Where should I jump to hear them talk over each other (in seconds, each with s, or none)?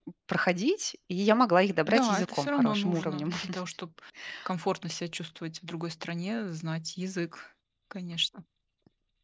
1.9 s